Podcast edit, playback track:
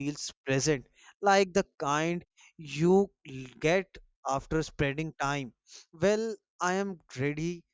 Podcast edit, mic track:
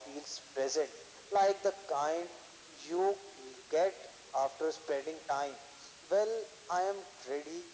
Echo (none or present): present